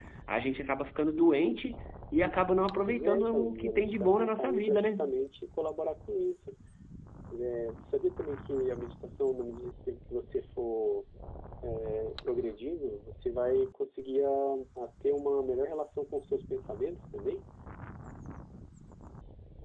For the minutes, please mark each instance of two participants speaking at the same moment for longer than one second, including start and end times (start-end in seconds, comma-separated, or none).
2.9-4.9